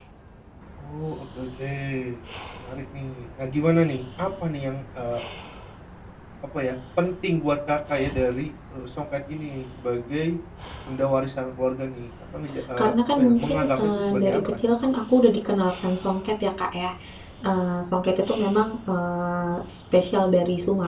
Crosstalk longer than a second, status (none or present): present